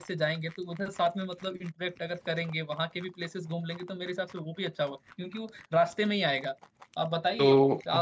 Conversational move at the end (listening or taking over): listening